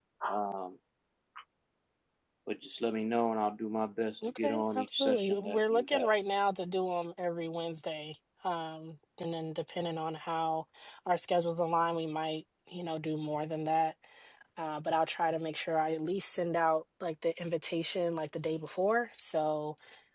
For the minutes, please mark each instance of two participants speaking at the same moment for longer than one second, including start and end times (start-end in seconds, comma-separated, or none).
4.3-6.1